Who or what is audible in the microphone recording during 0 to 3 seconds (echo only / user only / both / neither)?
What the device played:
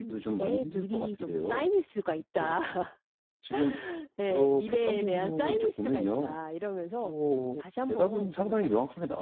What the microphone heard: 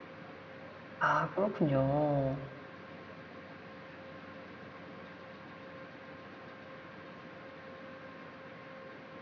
user only